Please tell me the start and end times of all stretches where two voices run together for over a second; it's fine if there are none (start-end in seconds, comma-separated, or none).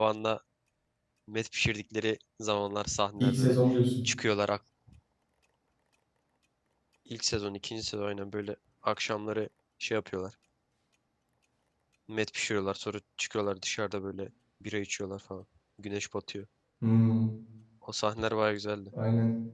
none